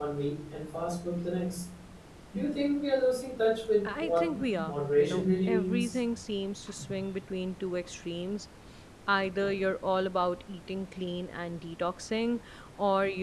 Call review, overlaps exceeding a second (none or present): present